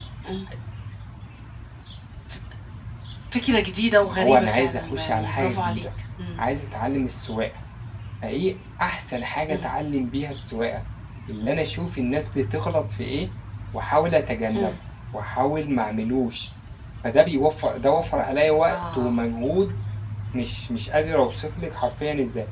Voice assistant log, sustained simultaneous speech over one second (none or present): present